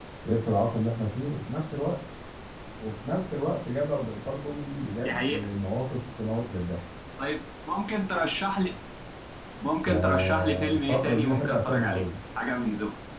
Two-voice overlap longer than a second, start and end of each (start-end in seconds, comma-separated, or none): 9.7-12.1